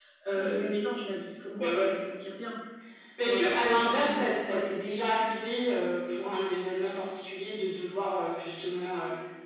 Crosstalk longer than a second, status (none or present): present